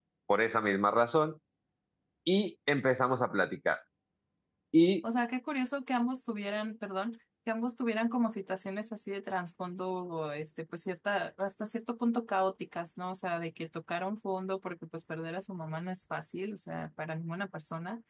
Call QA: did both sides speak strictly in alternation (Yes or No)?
Yes